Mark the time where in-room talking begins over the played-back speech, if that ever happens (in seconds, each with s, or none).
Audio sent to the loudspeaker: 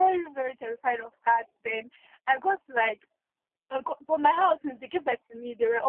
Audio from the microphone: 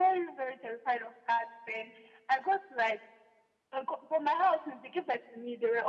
none